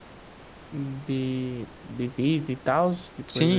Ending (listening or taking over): taking over